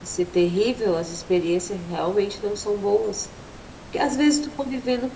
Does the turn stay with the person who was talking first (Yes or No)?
Yes